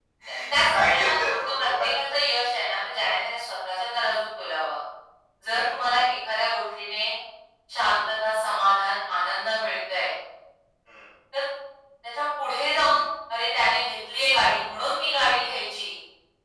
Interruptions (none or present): present